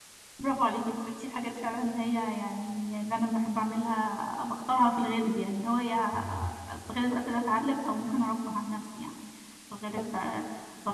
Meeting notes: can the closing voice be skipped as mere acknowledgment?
Yes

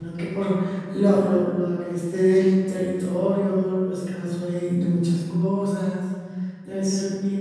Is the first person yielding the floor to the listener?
No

